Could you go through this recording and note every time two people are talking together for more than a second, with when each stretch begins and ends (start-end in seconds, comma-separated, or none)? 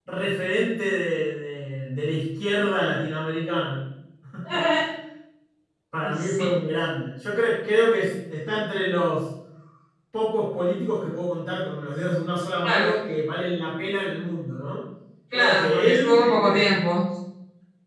15.3-16.7